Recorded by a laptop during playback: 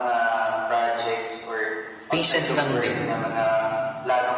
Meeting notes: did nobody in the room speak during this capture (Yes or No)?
No